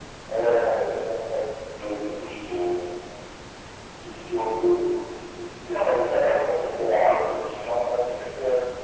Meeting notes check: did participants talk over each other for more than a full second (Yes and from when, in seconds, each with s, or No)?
Yes, from 5.7 s